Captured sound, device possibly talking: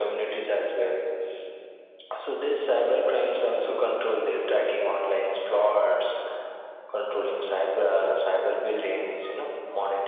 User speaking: No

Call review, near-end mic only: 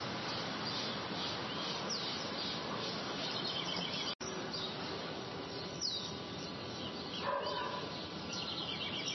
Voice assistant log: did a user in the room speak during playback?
No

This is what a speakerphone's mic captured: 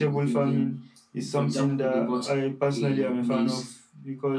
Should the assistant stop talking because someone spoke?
No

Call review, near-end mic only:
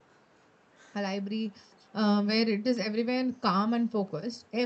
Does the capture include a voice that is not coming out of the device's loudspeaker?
Yes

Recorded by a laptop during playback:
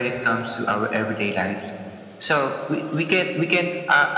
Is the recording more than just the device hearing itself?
No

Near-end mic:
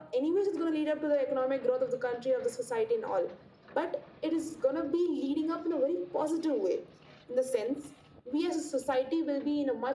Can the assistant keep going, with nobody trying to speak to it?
Yes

